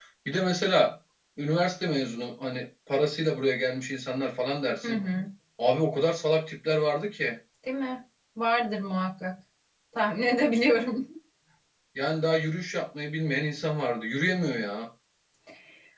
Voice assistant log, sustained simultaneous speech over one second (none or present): none